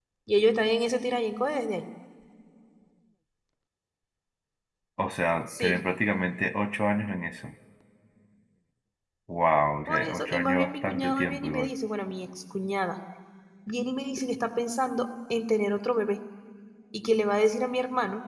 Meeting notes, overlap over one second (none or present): present